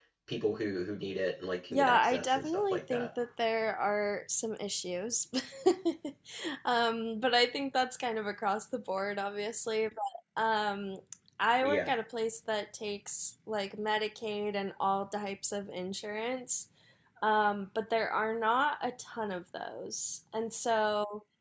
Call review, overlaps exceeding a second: present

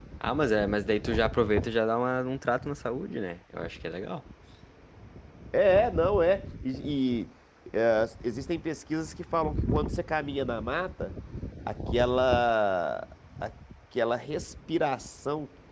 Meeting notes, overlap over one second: none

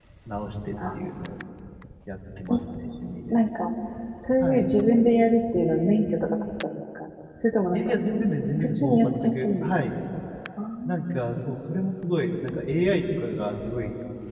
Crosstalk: present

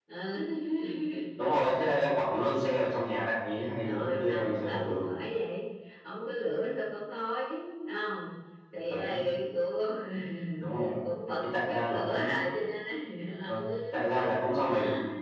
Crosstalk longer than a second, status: present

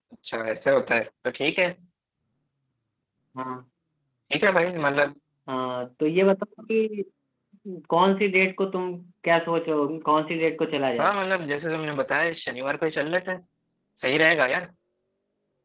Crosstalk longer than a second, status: none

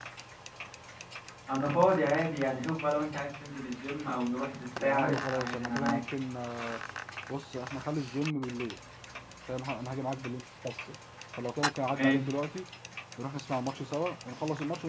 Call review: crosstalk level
present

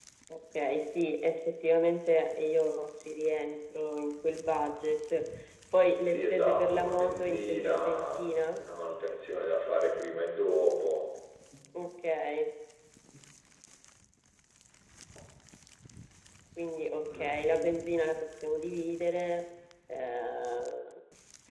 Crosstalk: present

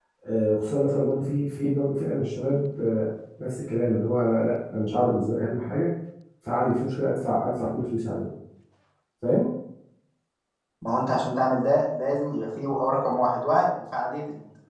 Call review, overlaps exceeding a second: none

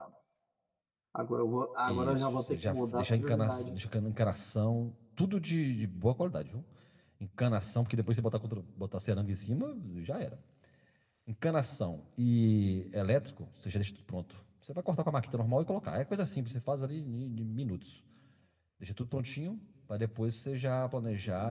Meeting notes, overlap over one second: present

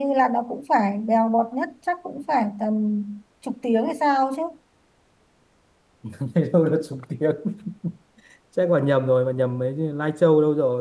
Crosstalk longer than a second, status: none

